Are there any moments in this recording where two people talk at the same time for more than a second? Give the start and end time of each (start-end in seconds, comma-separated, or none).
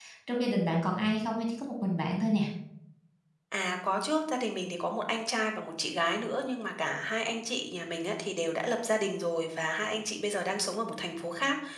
none